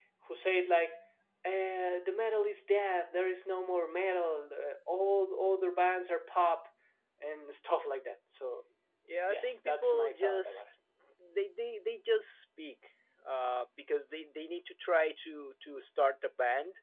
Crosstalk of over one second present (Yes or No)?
Yes